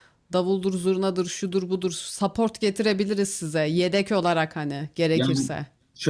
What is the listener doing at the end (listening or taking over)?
taking over